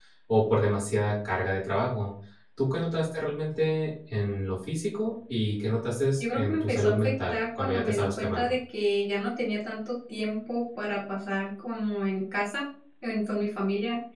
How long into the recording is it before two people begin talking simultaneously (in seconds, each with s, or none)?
6.2 s